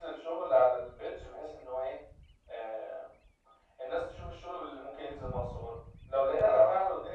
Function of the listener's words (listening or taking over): listening